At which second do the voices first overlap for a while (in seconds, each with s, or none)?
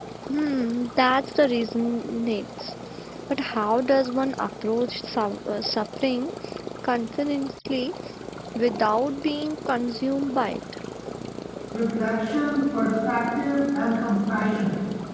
none